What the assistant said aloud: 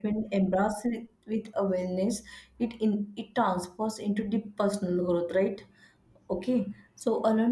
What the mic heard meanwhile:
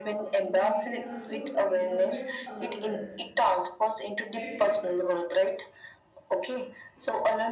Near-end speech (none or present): present